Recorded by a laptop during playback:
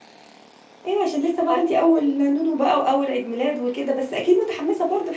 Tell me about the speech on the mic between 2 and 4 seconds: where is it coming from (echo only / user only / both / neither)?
user only